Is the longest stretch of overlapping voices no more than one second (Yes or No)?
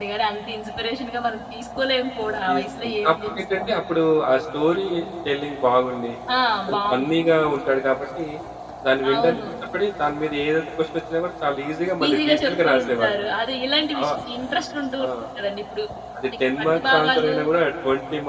No